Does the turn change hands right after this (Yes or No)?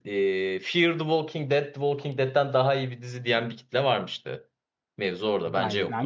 Yes